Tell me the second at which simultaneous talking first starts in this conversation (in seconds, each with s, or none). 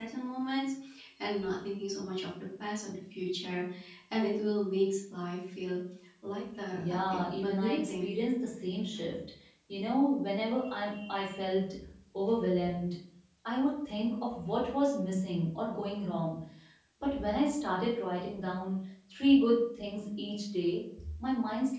6.9 s